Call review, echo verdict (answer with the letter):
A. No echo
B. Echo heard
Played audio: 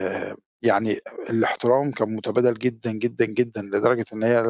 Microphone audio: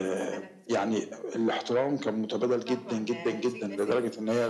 B